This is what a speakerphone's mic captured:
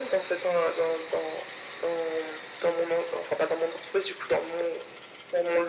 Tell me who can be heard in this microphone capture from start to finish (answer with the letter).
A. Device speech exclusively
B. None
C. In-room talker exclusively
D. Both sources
A